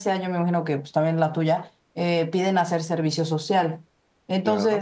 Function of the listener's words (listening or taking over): listening